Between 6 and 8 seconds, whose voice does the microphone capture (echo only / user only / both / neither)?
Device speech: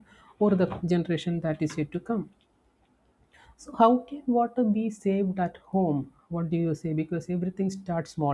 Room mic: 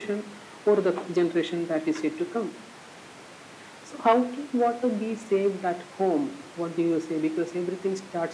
echo only